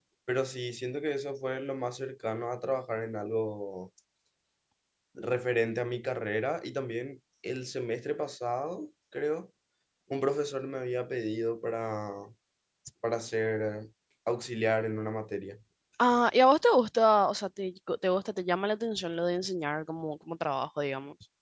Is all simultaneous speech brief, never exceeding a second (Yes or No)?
Yes